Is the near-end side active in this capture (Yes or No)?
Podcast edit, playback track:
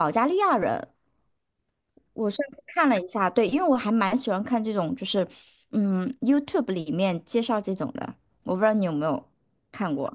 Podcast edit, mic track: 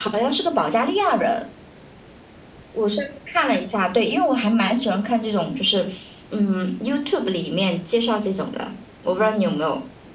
No